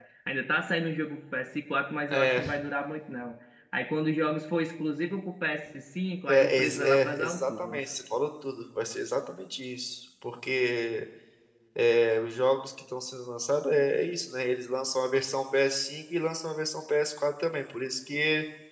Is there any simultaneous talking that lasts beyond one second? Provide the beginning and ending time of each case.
6.3-7.8

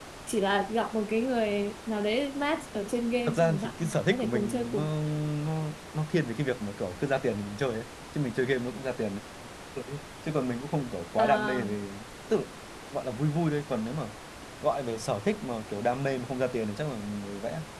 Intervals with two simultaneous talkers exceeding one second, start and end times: 3.3-4.9

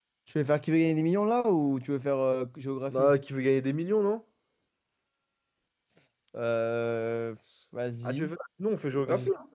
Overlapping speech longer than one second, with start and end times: none

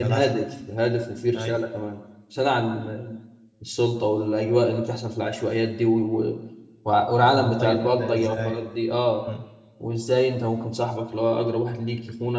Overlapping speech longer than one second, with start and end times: 7.2-8.6

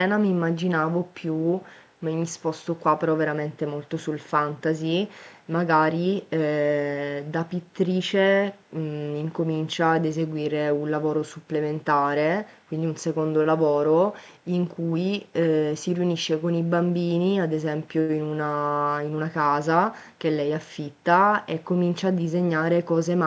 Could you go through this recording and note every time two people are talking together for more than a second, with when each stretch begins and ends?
none

